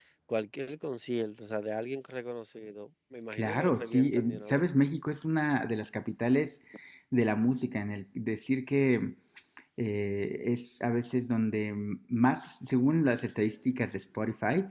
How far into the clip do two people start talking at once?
3 s

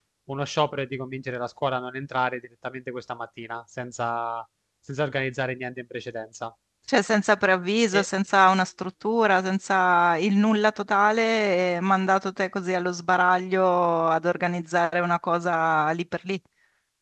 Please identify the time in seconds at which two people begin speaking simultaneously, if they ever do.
none

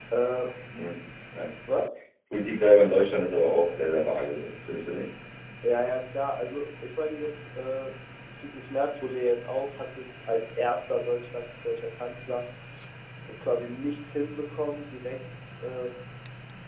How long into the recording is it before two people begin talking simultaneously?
none

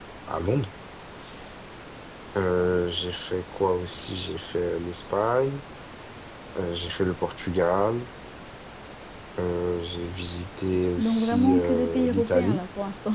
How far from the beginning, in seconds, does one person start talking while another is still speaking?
11 s

